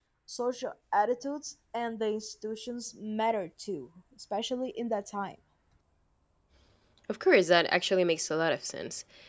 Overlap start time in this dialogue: none

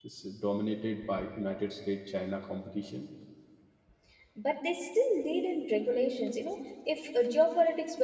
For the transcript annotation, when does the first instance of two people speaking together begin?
none

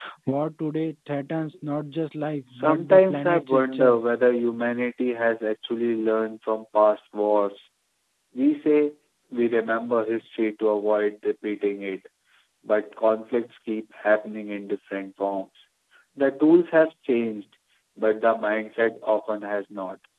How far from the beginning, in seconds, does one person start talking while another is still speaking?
2.5 s

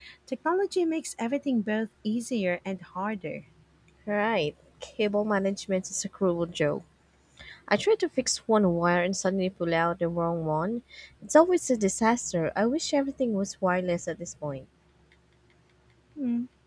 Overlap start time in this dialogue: none

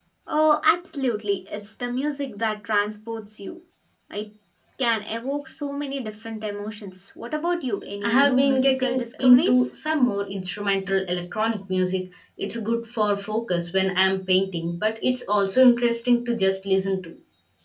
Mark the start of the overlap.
8.0 s

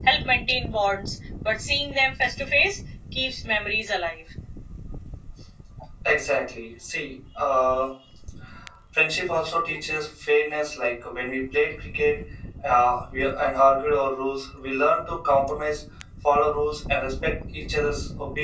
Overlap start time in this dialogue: none

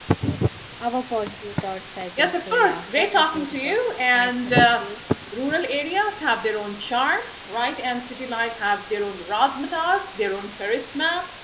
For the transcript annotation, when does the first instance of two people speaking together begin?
2.2 s

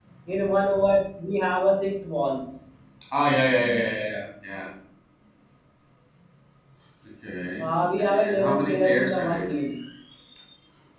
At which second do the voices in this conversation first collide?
7.6 s

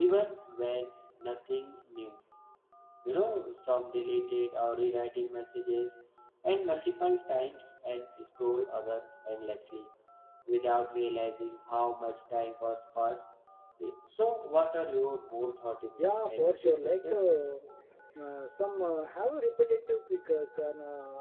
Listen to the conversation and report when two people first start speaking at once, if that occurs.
16.0 s

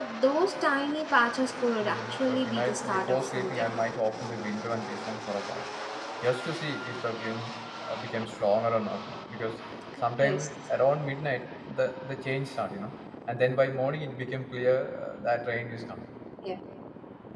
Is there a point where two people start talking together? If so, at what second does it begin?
1.8 s

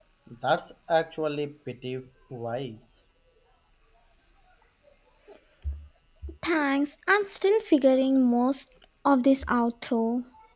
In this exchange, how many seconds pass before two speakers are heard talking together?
none

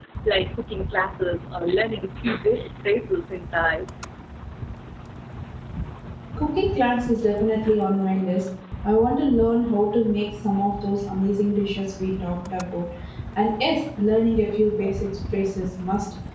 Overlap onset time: none

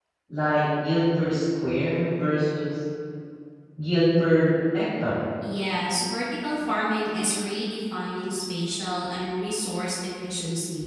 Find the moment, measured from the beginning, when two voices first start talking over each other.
none

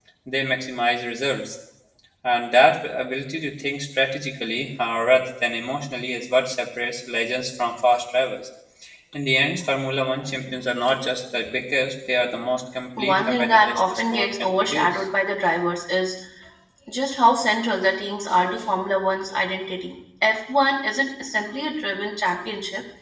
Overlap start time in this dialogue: 13.0 s

